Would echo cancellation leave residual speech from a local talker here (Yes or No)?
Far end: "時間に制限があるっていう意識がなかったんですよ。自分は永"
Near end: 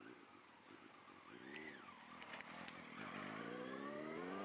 No